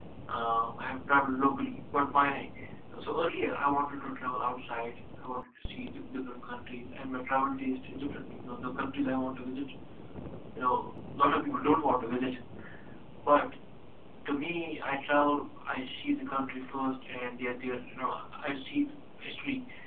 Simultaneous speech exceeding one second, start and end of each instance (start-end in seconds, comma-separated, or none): none